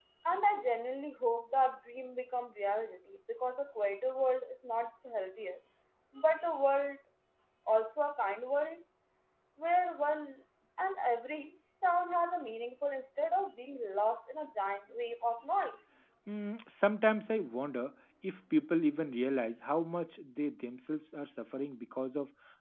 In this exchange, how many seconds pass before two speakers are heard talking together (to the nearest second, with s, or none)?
none